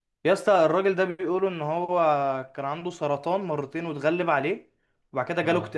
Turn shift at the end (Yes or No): No